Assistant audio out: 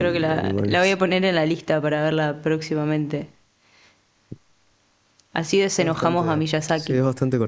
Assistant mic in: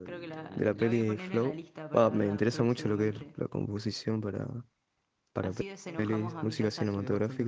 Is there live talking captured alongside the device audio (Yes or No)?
Yes